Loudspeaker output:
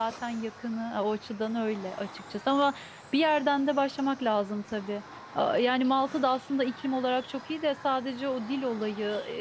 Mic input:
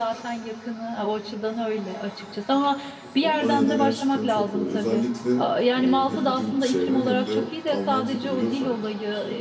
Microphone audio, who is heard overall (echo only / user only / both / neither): both